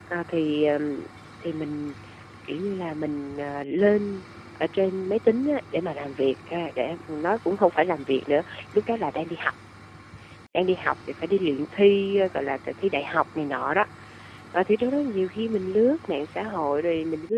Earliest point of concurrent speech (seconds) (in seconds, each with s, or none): none